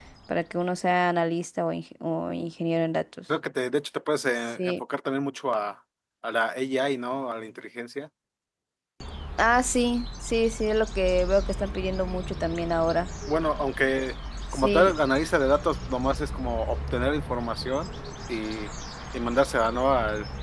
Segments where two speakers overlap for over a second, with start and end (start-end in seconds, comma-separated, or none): none